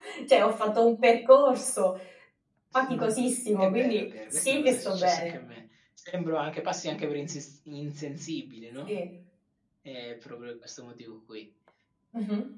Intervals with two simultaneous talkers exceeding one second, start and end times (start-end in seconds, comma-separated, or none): 3.6-5.4